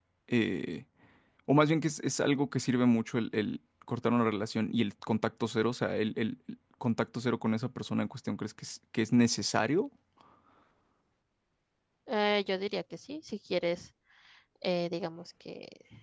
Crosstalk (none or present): none